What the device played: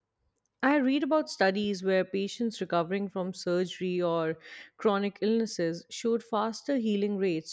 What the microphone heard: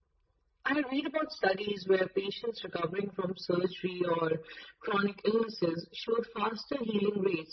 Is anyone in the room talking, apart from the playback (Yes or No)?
No